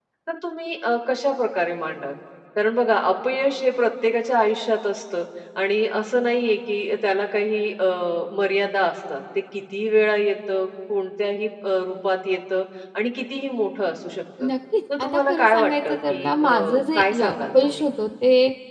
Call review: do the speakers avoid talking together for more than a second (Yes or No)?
No